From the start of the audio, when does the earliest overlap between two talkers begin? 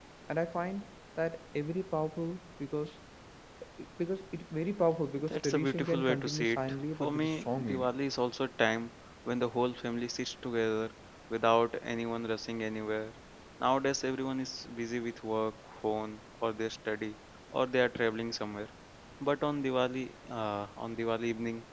5.3 s

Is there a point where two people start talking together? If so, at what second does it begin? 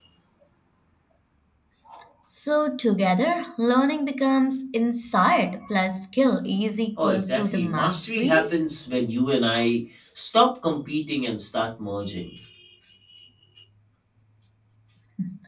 7.0 s

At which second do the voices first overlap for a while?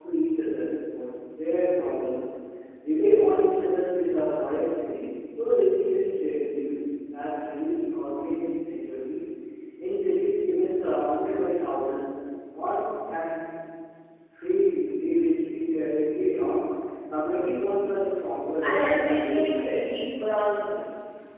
18.6 s

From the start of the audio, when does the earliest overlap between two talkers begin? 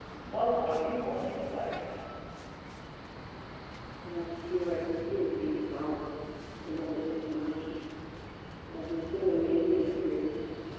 none

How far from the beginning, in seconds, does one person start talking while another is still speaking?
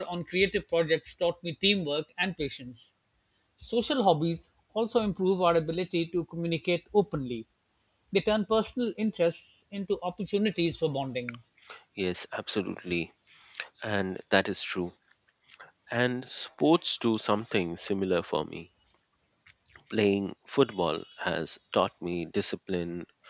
none

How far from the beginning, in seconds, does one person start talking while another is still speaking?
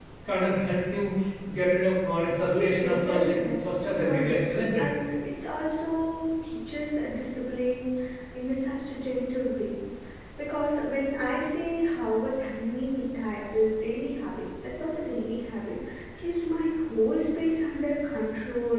2.5 s

